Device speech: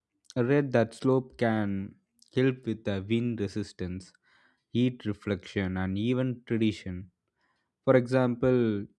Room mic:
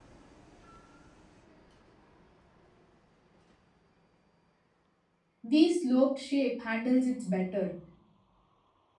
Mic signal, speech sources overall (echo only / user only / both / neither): user only